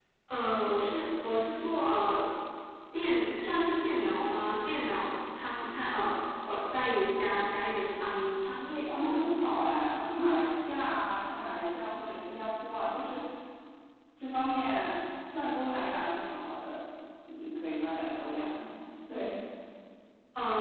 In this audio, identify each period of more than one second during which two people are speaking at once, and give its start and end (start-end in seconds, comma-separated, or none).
none